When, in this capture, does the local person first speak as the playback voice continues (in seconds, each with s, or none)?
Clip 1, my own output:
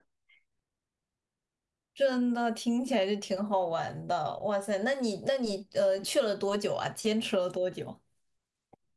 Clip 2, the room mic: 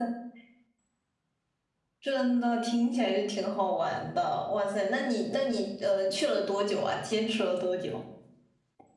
none